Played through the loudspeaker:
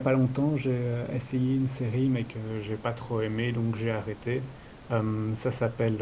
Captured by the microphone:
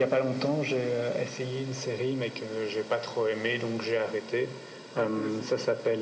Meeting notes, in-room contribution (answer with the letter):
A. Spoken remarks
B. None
A